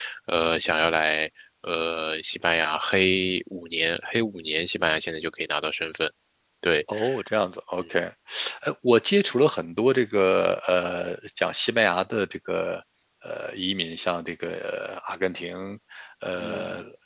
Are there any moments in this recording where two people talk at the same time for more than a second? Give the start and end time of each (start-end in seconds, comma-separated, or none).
none